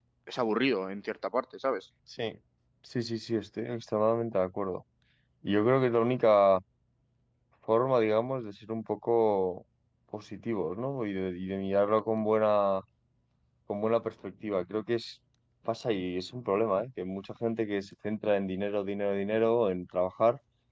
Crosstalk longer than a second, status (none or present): none